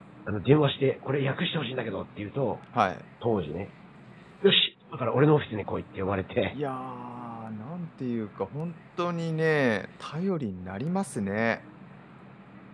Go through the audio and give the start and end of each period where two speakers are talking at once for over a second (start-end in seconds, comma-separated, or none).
none